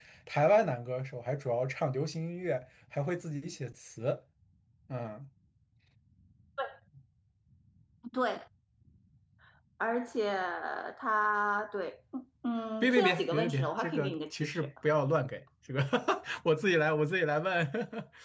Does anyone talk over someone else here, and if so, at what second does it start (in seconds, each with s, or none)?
12.8 s